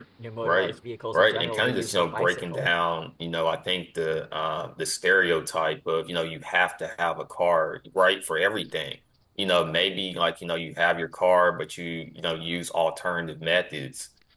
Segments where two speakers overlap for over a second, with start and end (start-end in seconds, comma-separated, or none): 1.1-2.7